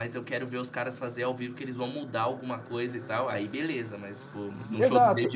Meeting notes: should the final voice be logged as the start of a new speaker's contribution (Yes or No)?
No